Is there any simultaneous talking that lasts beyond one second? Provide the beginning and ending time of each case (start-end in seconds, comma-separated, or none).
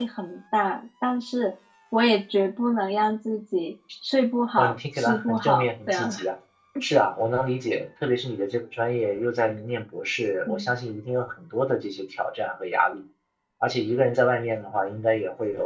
4.6-6.1